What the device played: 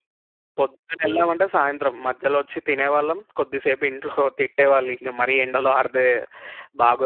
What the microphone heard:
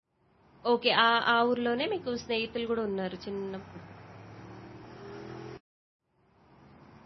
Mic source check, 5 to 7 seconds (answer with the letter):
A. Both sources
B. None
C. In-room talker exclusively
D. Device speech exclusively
B